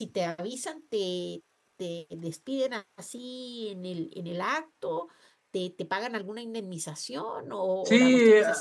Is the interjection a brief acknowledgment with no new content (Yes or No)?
No